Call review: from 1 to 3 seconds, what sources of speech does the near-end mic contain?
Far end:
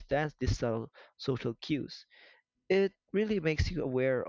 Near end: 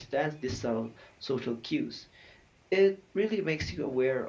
echo only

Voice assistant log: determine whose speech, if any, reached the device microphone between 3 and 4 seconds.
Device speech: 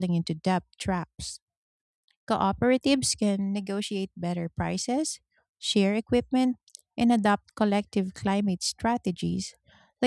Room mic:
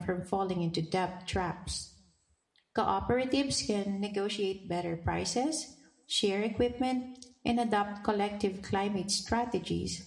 echo only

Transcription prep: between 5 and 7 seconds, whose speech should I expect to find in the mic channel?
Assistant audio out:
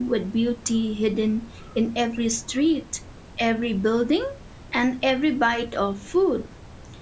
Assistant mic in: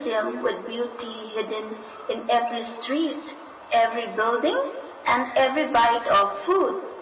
echo only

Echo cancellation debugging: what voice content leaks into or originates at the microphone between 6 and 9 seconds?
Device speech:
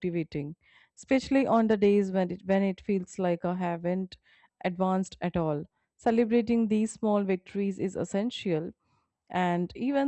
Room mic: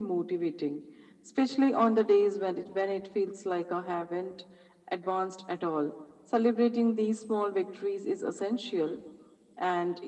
echo only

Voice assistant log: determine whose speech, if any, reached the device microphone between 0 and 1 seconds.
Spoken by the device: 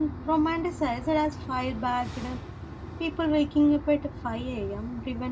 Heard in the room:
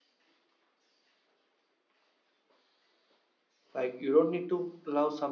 neither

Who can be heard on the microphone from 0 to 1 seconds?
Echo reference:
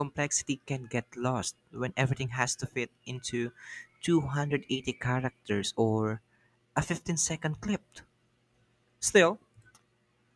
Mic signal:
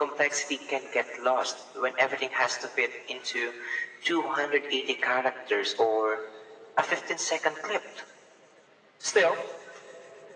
echo only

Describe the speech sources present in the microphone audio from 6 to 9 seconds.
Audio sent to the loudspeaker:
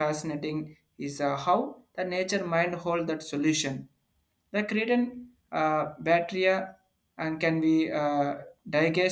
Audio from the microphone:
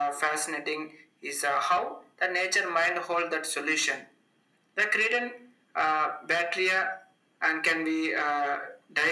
echo only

